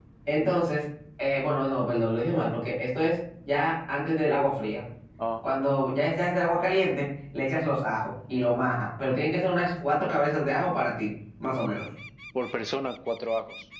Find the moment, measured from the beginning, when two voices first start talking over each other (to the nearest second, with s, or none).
none